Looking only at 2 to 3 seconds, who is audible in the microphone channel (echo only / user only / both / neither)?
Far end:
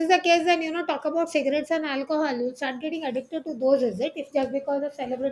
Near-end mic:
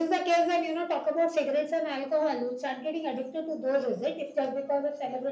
echo only